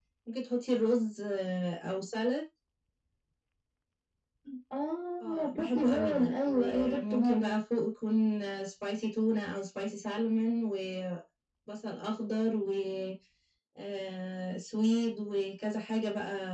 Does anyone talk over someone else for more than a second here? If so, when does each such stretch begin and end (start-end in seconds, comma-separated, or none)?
5.2-7.6